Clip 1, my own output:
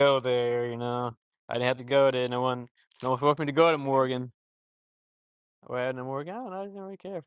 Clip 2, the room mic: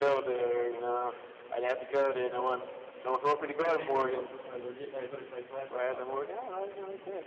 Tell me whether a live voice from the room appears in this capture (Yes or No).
Yes